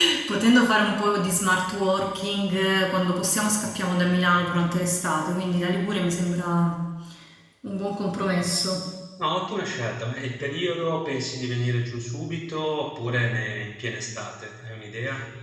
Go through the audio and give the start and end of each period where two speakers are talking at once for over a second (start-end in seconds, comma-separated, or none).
none